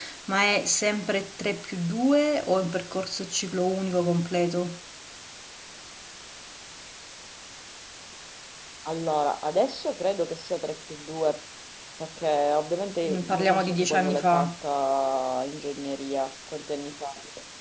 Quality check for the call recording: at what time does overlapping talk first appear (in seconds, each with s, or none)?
13.0 s